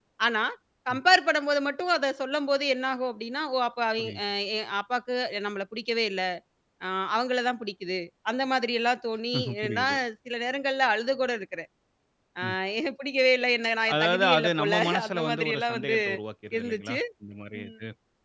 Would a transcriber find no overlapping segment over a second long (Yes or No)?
No